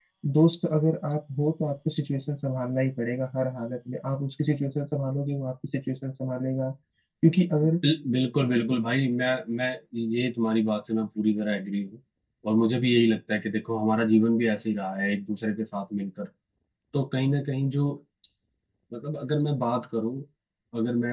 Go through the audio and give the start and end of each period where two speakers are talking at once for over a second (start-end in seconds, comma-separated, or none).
none